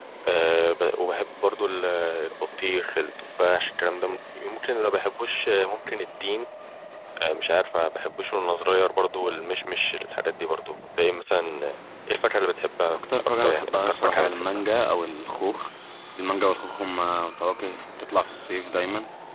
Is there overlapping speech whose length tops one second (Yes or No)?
Yes